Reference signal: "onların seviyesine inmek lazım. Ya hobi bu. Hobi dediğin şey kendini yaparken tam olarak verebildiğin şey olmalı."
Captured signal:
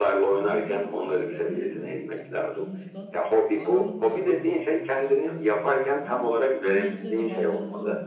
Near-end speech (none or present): present